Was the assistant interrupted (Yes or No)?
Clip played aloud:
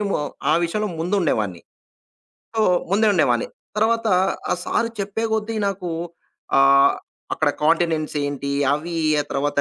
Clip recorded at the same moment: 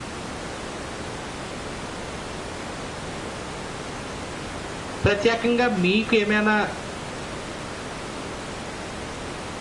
Yes